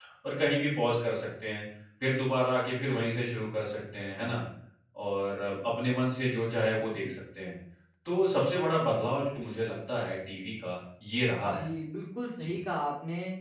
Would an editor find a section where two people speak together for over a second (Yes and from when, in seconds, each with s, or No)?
No